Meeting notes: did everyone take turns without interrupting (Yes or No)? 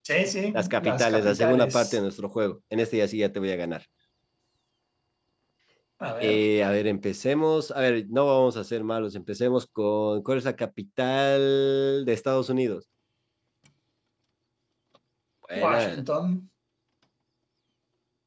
No